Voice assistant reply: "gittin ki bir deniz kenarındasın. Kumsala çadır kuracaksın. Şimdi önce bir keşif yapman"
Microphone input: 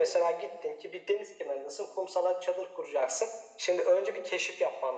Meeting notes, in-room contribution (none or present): none